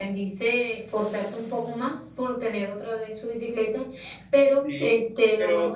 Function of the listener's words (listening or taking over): taking over